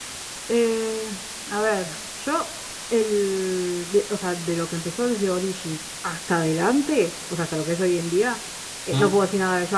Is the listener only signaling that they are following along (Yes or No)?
Yes